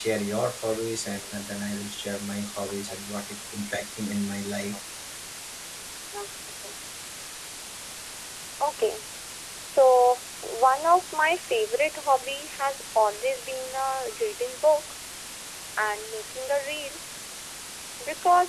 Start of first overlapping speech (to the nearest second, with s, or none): none